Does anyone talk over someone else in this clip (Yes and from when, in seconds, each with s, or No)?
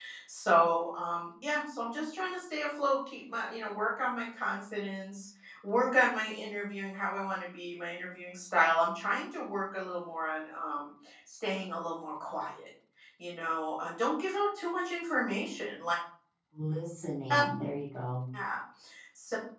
No